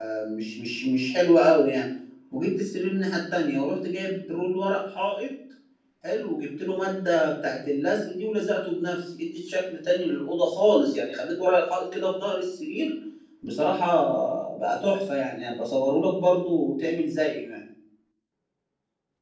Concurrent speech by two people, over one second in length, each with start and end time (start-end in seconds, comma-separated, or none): none